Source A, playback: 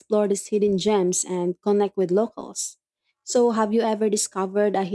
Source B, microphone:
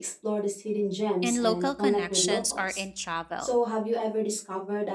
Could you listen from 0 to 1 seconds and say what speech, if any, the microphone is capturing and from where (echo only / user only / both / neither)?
echo only